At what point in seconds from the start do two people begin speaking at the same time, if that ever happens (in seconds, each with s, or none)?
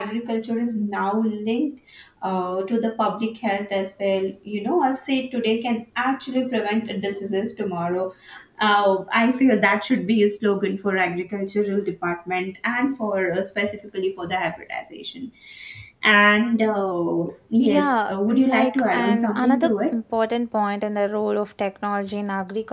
17.6 s